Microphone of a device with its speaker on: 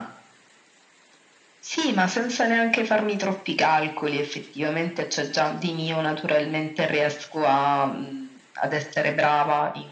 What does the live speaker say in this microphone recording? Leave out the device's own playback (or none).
none